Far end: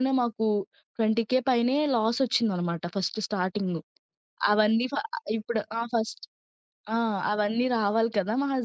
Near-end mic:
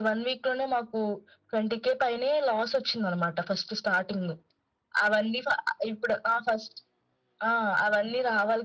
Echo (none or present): present